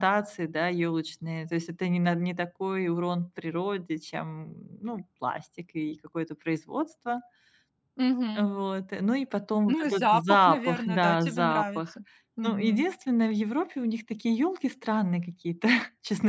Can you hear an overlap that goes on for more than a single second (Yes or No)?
Yes